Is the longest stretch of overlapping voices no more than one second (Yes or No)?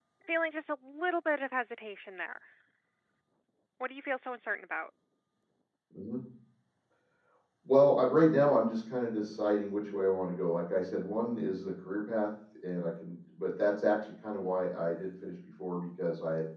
Yes